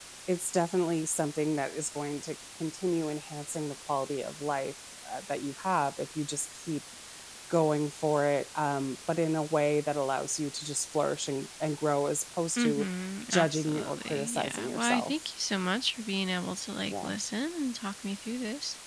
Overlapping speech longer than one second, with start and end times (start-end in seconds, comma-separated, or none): 13.3-15.3